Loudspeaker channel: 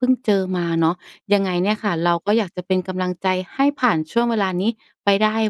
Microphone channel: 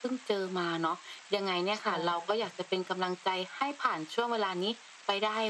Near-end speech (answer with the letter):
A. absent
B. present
B